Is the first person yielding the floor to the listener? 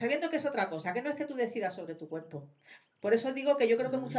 No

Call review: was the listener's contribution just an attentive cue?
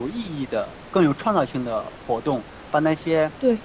Yes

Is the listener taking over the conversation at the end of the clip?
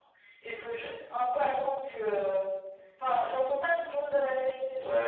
Yes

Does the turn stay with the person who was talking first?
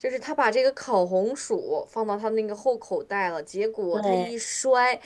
Yes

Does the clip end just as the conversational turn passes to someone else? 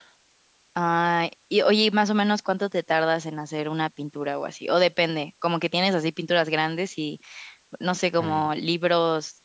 No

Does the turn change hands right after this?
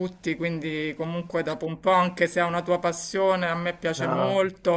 No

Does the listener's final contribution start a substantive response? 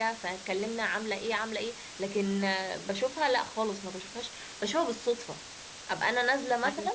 No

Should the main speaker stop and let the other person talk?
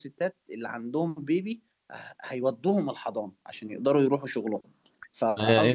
Yes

